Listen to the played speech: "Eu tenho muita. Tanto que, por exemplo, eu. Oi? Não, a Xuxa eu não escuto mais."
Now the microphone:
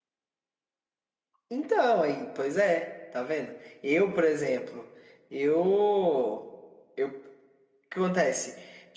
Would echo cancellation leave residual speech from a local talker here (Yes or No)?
Yes